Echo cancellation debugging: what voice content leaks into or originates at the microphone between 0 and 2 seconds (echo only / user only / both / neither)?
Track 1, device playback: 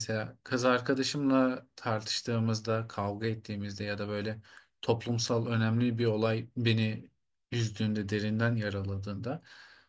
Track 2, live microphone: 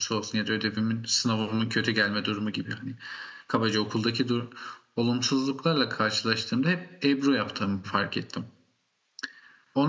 user only